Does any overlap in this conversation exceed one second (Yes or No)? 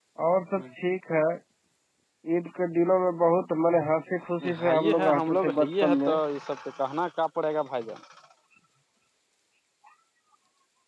Yes